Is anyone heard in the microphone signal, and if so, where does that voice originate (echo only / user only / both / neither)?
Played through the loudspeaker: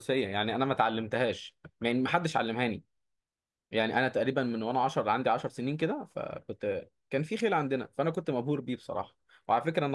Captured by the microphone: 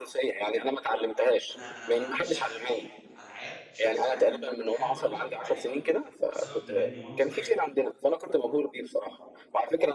both